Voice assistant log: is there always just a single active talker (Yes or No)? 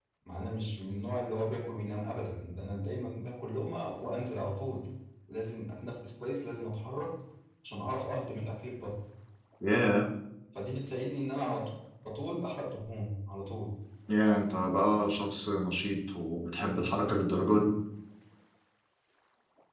Yes